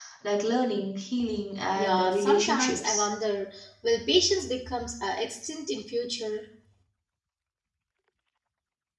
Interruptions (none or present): present